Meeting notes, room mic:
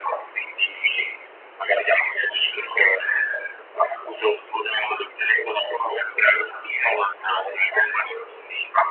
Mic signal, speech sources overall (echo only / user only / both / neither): echo only